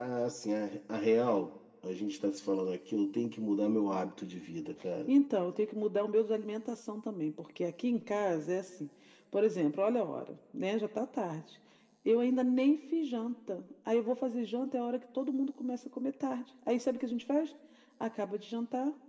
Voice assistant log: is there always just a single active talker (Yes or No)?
Yes